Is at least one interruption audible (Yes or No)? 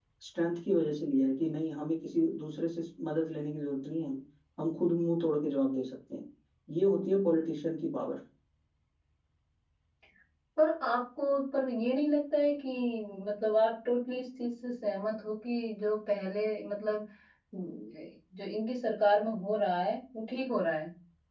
No